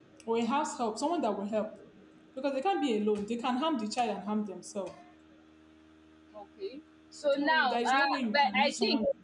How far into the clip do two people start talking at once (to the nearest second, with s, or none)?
7 s